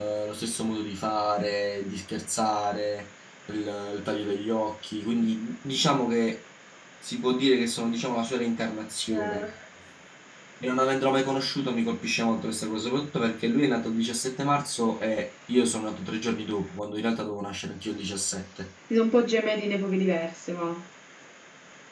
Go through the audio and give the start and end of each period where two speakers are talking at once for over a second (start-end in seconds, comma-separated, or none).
none